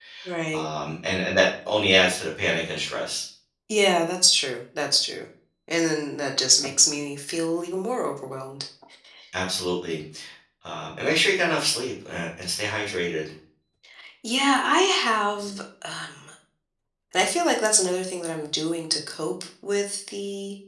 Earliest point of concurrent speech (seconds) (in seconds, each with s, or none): none